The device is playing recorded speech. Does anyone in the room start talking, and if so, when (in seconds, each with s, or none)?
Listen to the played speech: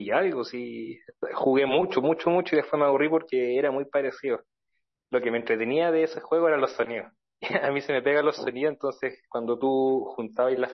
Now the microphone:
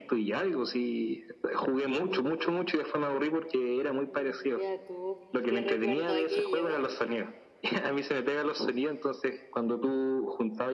4.1 s